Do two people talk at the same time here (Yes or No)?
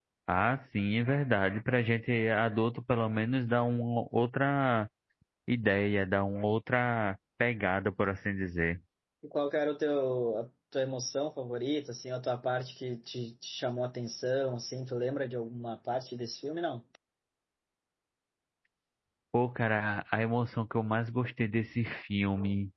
No